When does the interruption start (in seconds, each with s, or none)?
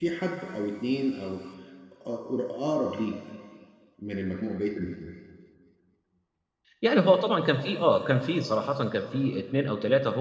none